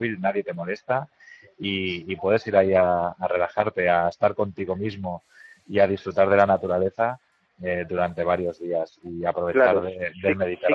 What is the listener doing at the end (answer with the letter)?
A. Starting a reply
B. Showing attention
A